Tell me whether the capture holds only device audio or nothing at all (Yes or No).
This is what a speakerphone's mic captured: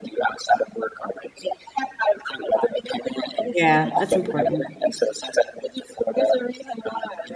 No